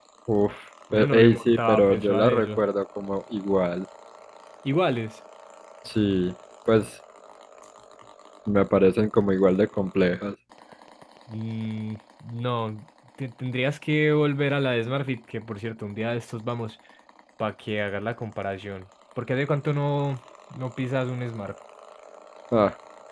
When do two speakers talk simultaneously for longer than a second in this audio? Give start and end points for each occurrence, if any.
0.9-2.6

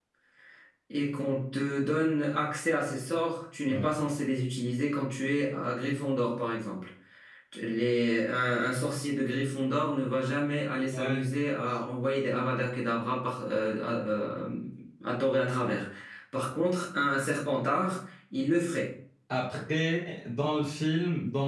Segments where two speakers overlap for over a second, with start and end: none

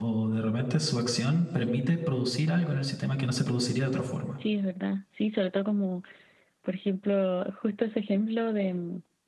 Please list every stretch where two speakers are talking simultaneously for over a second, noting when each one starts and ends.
none

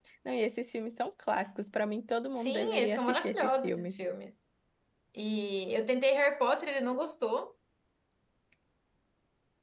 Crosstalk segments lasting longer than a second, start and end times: 2.3-4.0

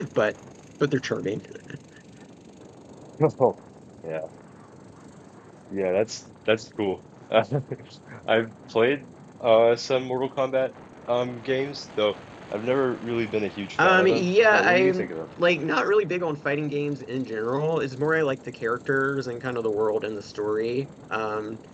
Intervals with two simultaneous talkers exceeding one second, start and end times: 13.8-15.1

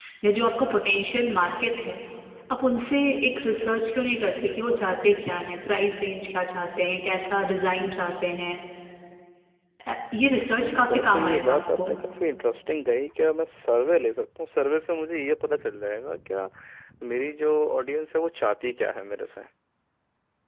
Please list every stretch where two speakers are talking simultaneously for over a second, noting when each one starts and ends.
10.5-11.9

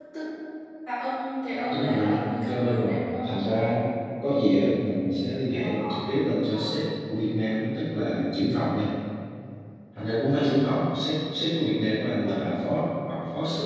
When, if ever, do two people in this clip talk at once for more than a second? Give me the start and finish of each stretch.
1.7-3.3

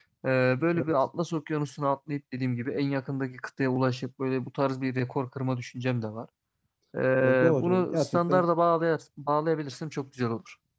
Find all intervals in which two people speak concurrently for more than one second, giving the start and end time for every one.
7.2-8.4

